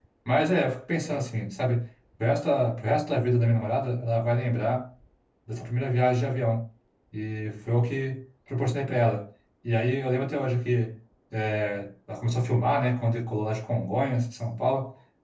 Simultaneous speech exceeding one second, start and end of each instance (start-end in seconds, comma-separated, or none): none